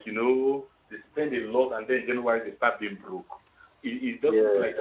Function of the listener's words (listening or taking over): listening